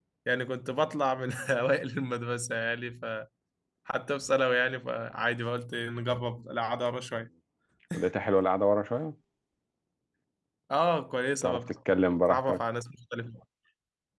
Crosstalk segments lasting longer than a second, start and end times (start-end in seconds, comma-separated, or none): none